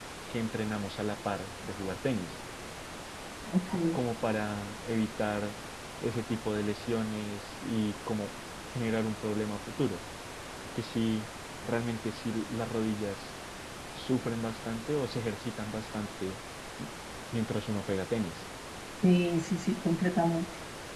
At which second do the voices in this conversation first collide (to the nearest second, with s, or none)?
none